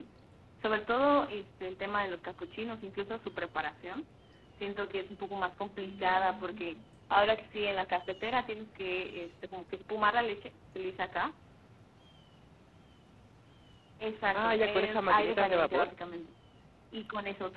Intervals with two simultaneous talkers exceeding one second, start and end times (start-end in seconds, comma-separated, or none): 14.3-15.9